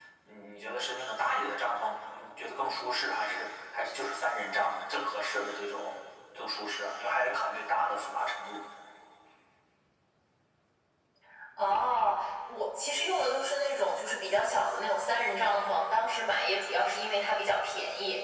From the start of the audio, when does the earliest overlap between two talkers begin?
none

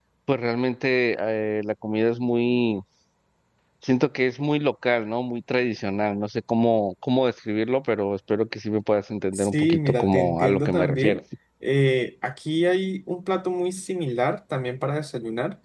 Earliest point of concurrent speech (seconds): 9.3 s

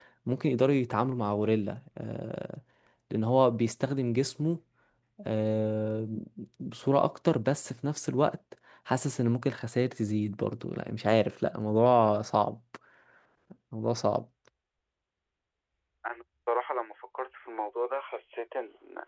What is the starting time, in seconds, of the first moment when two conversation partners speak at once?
none

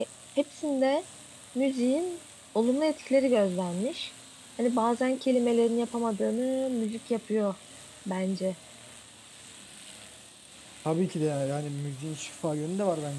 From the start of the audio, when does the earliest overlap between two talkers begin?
none

